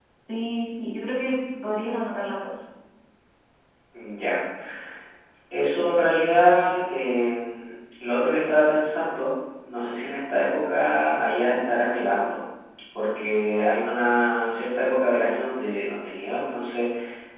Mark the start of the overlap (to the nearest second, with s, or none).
none